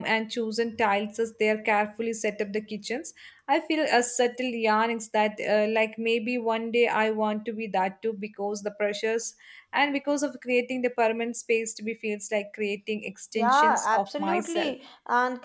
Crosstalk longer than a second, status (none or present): present